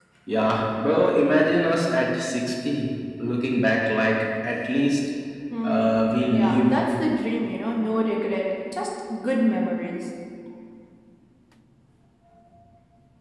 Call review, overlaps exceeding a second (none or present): present